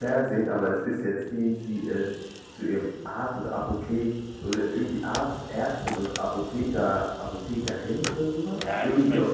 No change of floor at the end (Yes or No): No